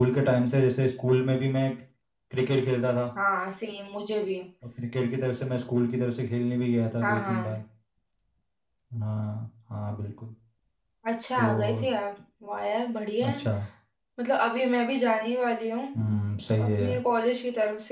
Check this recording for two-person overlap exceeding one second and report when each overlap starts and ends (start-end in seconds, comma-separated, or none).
none